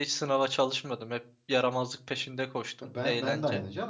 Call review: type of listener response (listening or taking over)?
taking over